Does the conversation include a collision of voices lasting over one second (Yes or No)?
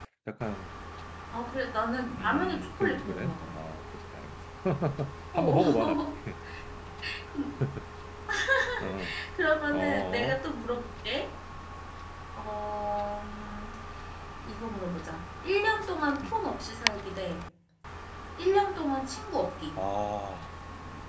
Yes